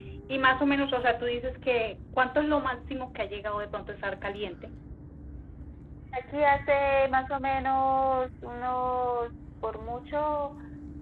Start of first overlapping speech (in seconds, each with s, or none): none